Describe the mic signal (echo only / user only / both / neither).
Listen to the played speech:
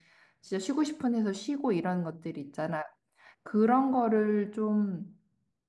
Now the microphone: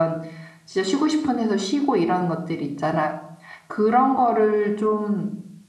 echo only